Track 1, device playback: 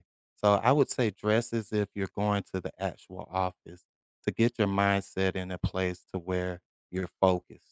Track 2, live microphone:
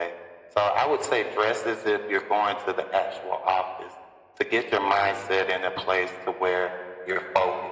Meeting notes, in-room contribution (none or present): none